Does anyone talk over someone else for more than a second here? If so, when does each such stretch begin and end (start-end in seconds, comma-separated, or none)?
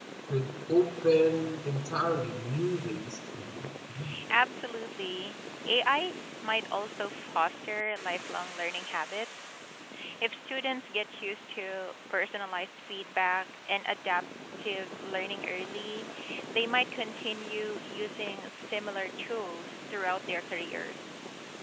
none